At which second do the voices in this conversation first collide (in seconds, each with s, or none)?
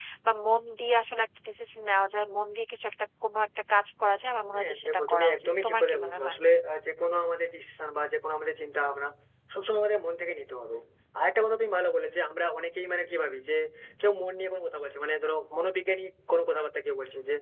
4.5 s